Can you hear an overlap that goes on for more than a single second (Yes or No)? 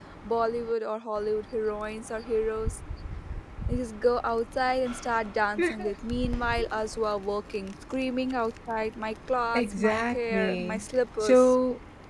Yes